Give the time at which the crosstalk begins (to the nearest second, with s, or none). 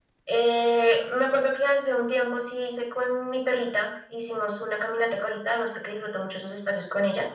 none